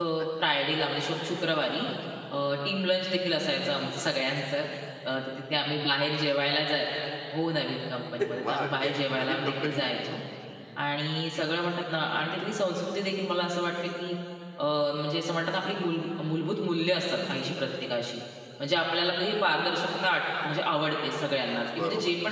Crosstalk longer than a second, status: present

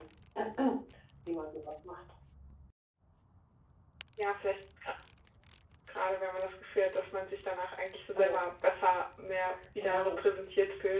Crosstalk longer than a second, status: none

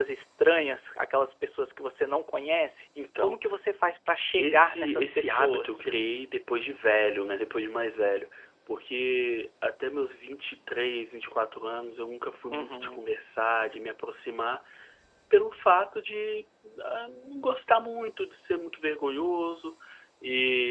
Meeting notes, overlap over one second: present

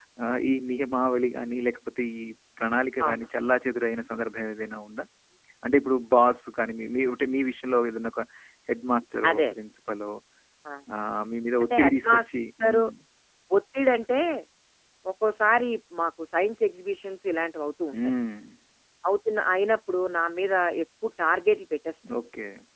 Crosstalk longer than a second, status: present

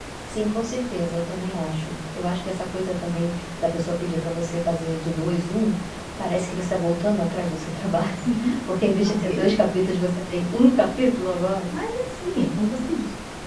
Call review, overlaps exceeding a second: none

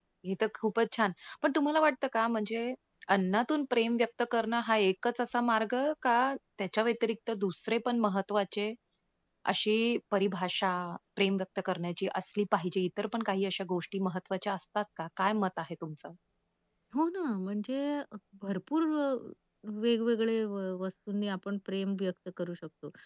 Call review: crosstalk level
none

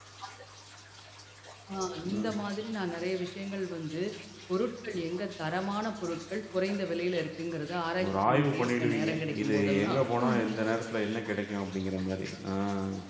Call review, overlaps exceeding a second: present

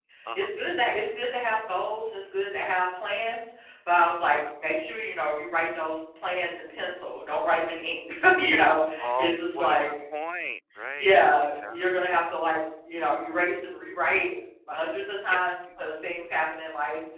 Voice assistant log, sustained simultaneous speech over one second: present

